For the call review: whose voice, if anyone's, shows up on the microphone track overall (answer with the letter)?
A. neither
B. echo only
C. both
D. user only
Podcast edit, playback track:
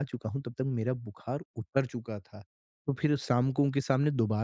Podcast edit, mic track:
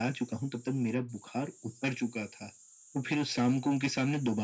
B